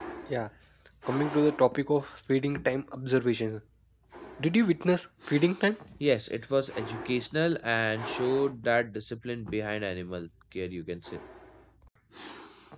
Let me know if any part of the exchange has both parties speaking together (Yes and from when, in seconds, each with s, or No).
No